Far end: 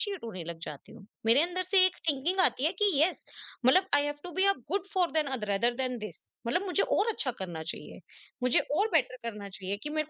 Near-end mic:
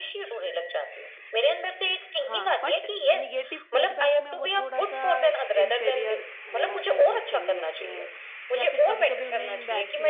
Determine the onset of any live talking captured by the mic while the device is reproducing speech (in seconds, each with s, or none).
2.2 s